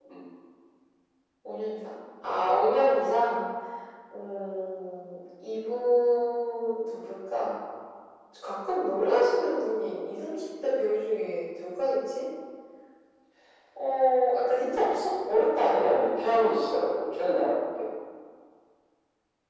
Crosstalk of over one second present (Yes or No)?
No